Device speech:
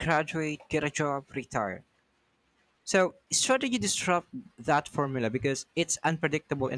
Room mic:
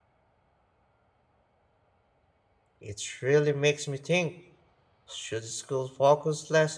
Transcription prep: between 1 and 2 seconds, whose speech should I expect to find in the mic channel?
neither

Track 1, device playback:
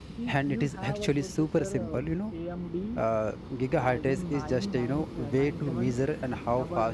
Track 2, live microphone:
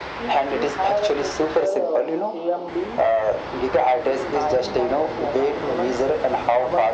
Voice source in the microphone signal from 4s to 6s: echo only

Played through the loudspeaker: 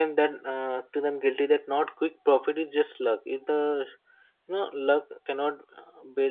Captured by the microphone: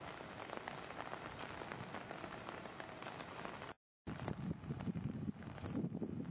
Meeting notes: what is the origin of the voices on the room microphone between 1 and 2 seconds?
neither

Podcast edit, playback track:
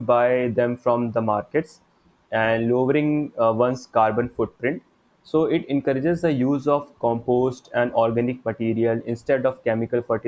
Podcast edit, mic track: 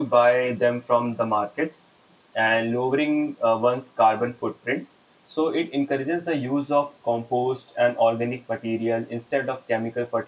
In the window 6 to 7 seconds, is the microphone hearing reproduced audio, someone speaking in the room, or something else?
echo only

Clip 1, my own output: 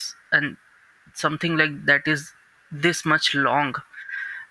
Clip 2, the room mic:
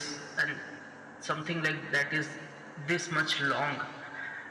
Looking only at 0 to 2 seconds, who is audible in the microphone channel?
echo only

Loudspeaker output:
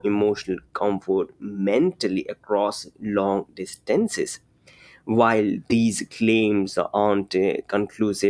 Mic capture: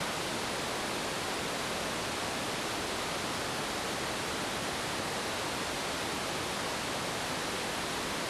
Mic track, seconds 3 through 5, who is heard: neither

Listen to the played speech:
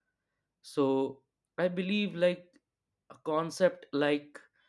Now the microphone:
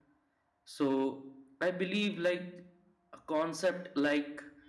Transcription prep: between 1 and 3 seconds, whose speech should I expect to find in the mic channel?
echo only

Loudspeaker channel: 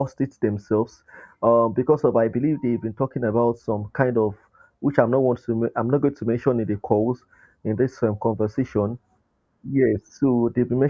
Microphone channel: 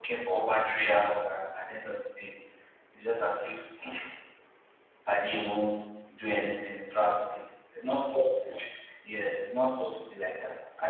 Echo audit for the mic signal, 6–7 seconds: user only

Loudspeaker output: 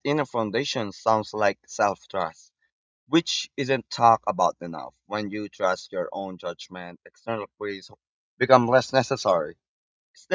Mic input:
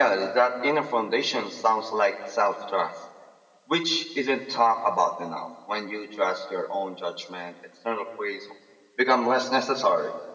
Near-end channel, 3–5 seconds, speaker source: echo only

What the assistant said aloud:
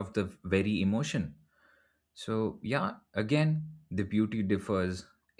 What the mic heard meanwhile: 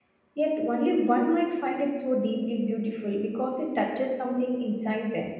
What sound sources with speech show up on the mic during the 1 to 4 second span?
user only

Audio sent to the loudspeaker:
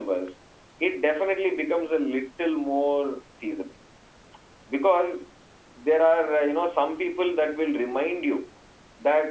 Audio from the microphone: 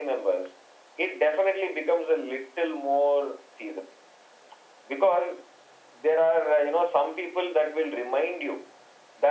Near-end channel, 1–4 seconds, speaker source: echo only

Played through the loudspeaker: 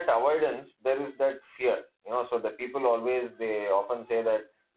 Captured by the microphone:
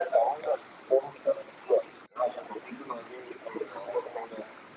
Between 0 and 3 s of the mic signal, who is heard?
echo only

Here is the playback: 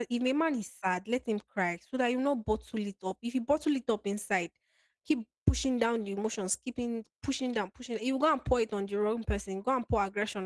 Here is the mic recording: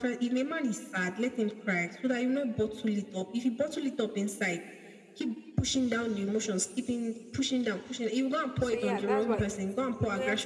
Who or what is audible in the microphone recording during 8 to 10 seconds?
both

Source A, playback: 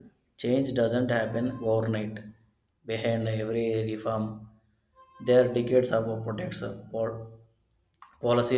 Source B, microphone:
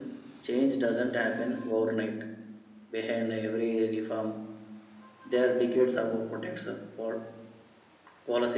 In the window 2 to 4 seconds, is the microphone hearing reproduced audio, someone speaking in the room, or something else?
echo only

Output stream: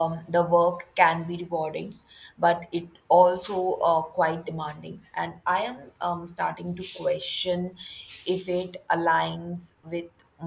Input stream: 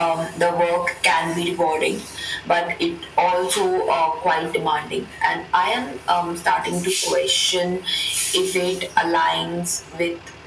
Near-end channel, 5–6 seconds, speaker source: echo only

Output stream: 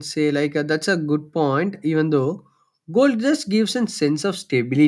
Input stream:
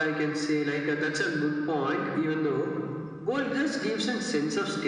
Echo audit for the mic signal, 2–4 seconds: echo only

